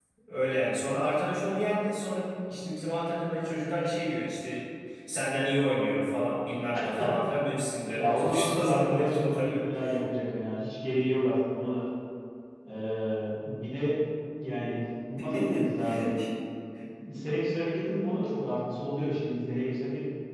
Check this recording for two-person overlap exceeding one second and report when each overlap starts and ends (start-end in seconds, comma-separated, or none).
8.0-9.7